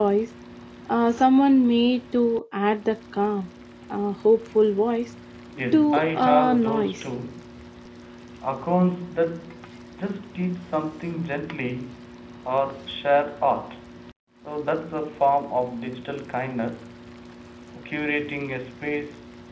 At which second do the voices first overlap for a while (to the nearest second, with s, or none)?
6 s